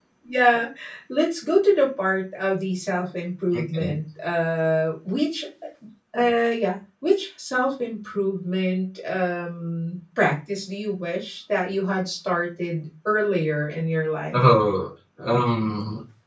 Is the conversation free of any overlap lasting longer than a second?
Yes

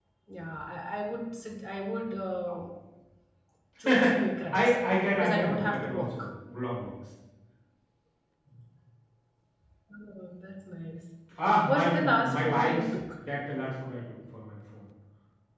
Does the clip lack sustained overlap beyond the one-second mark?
No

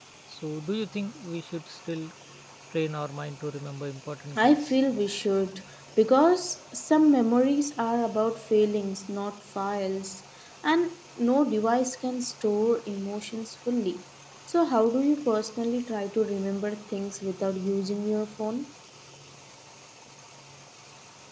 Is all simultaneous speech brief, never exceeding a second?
Yes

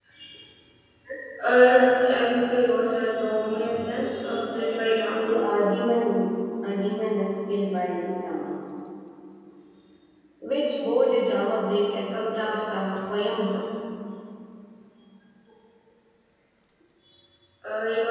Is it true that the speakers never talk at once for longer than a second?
No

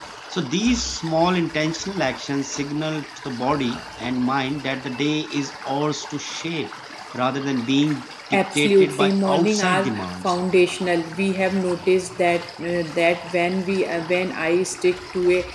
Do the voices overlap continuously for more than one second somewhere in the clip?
Yes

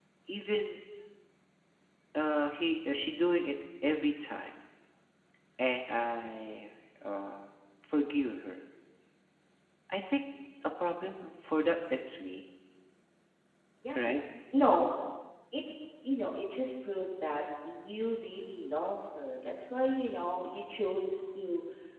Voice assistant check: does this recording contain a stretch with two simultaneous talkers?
No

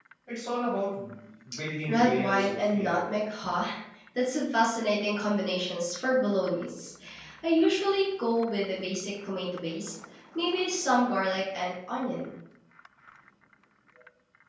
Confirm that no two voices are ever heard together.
No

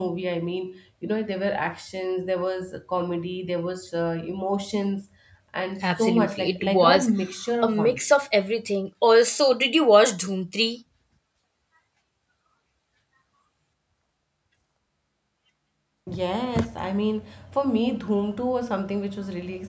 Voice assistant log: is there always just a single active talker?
No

